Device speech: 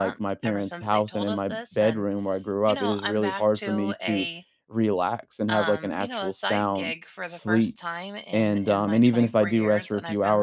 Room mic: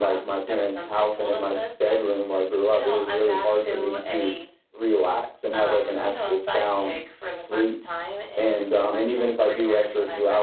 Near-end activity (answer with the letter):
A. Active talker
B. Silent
B